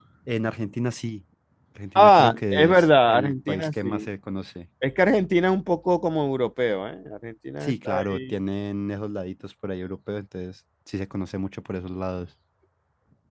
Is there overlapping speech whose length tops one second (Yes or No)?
Yes